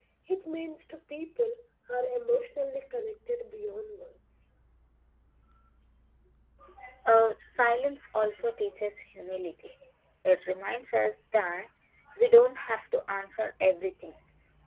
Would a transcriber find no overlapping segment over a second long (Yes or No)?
Yes